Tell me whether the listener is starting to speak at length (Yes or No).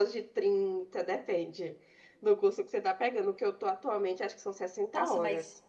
Yes